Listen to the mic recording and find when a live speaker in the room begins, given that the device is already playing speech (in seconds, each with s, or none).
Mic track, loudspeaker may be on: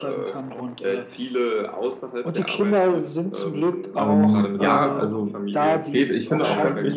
3.9 s